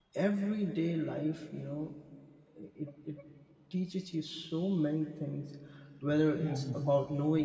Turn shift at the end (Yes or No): No